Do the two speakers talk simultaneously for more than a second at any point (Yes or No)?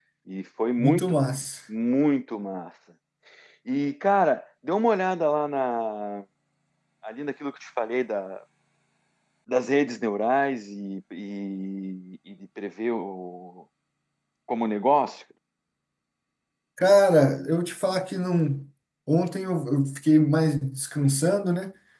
No